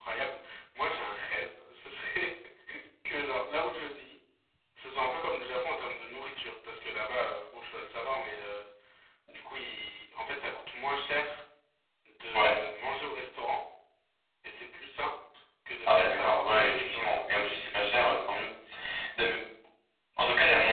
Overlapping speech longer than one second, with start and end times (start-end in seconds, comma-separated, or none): 15.9-17.2